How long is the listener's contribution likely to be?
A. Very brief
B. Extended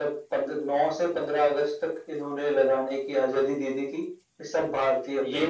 A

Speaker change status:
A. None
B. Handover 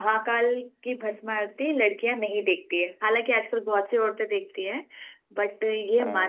A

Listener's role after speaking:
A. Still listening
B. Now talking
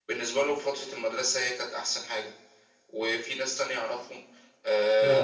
A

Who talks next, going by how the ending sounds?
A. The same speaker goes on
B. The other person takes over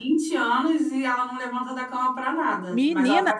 B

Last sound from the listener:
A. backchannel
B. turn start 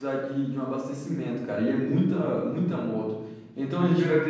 A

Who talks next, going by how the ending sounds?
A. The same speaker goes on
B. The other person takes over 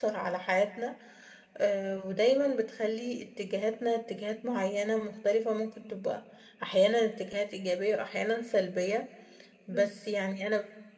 A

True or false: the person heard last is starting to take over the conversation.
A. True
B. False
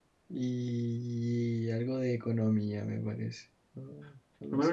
A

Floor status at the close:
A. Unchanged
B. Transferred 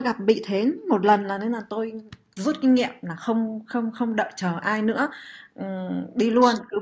A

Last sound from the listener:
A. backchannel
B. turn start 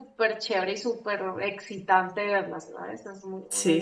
B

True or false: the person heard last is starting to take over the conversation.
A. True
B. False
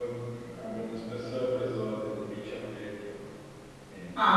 A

